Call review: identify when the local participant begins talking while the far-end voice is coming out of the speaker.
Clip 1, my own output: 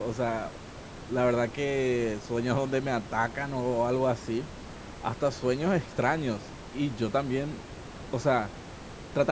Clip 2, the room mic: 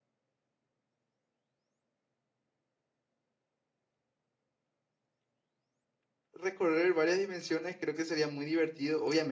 6.3 s

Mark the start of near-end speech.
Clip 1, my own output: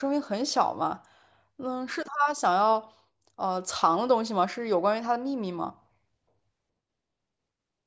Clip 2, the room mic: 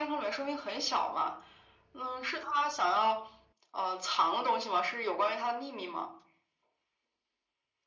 none

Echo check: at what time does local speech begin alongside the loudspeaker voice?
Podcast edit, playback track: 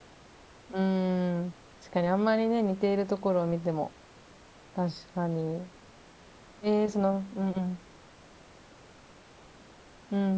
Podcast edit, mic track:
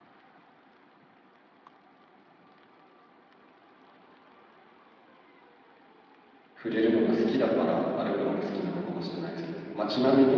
6.6 s

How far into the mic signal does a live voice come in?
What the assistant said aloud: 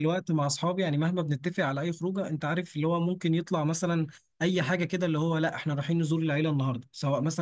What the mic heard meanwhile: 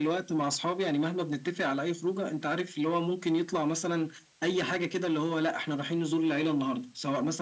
none

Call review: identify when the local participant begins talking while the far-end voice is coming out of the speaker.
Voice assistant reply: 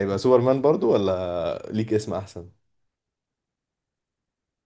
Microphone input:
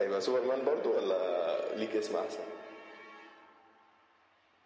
none

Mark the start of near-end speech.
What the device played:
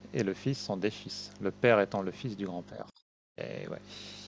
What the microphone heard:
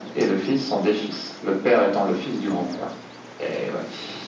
none

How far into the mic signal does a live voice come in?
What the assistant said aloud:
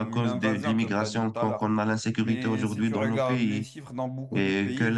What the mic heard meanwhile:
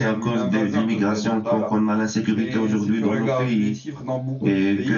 none

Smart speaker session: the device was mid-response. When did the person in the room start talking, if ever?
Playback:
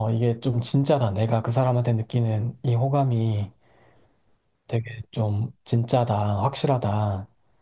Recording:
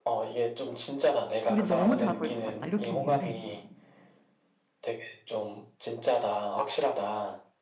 1.4 s

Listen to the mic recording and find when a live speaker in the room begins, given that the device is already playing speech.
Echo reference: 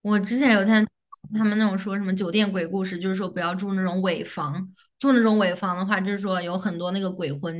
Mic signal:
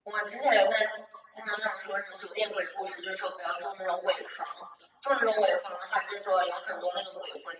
none

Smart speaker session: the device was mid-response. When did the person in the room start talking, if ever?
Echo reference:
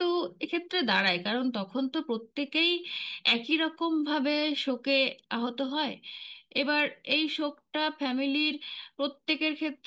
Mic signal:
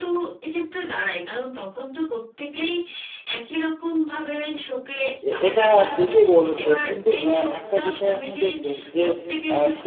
5.3 s

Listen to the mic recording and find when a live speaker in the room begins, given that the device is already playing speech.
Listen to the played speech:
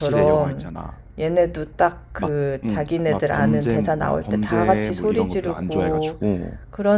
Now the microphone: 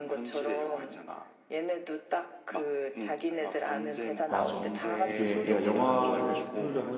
4.2 s

